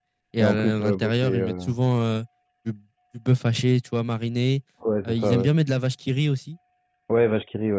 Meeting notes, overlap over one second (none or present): present